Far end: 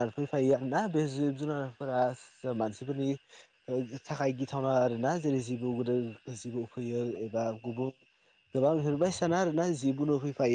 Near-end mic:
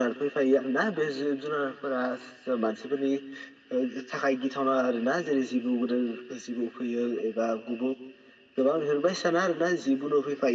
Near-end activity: none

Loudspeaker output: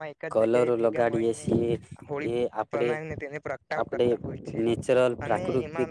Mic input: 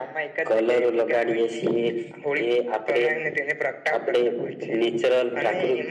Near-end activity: none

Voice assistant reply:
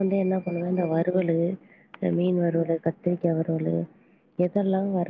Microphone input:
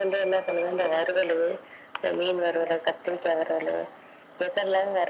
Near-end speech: none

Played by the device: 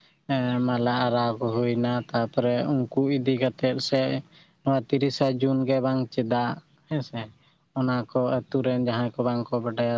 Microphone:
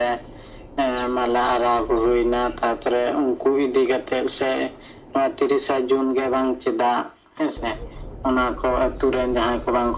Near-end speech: none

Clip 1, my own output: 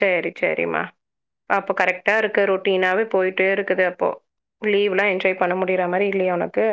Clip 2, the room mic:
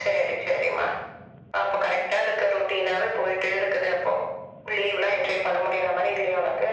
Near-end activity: none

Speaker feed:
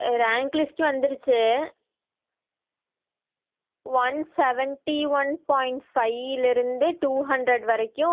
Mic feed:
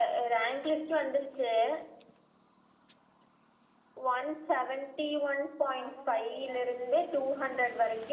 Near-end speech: present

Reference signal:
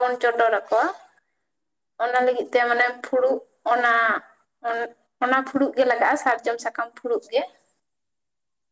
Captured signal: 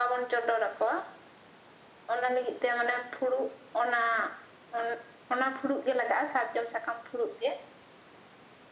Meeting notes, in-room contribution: none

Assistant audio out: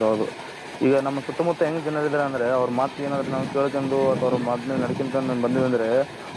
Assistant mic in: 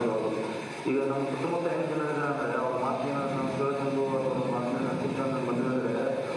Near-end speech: none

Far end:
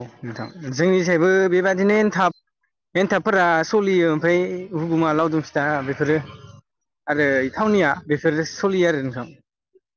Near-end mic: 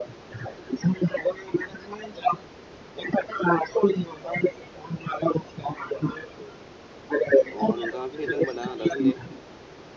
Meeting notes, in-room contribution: present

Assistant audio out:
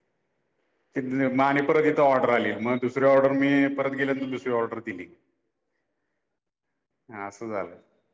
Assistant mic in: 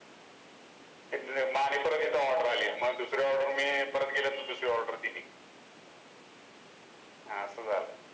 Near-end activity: none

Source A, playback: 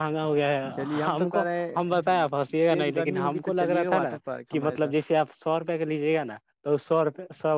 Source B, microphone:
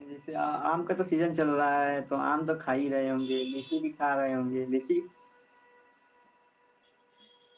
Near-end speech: present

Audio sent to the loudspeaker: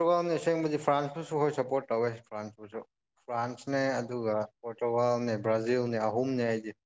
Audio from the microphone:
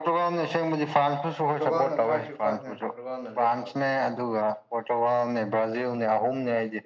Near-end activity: present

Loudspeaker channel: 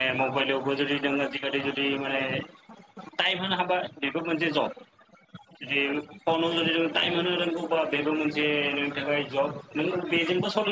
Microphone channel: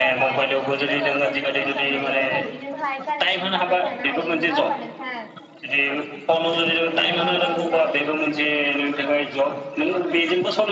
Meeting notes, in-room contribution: present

